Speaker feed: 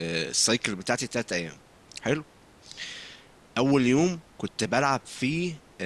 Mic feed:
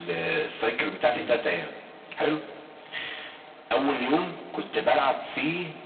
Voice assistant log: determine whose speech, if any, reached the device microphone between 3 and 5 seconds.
echo only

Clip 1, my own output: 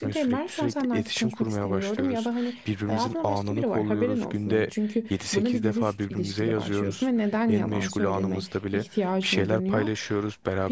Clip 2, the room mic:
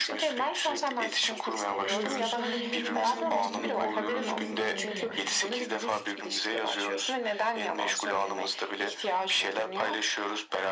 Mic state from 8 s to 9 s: echo only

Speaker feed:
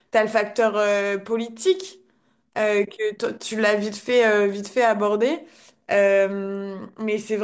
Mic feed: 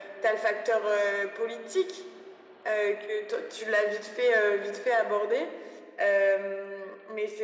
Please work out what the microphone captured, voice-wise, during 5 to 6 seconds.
echo only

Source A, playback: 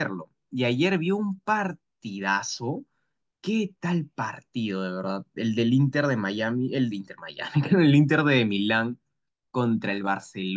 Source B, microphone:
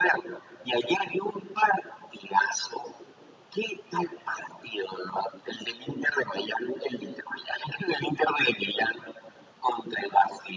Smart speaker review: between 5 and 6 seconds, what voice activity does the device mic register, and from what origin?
echo only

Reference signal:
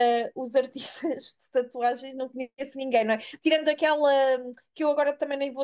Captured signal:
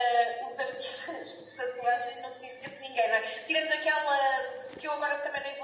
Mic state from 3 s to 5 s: echo only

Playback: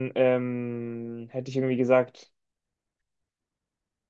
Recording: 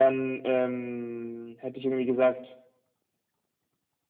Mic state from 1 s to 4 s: echo only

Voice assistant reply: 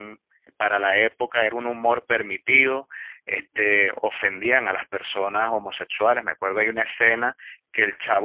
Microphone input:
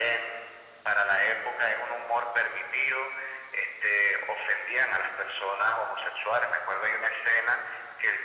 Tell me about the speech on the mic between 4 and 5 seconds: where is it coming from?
echo only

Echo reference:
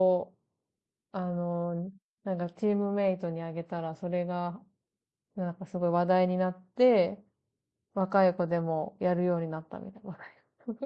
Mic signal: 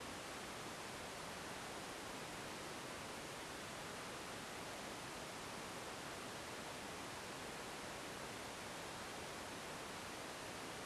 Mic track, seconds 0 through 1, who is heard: neither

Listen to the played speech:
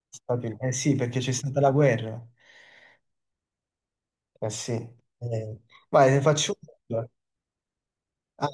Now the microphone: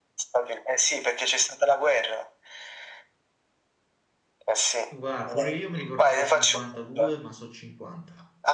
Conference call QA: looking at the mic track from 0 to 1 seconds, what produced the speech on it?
echo only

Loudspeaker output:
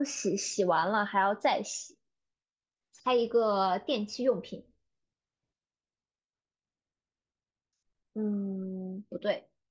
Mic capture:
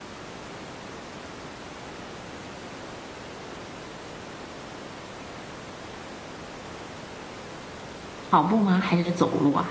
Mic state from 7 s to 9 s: user only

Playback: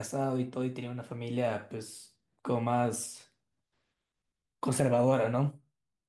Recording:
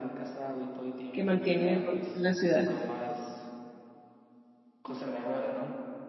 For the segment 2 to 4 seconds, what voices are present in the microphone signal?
both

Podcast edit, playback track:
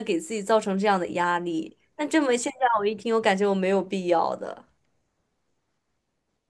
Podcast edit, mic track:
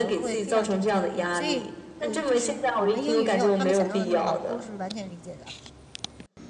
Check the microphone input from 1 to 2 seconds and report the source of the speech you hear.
both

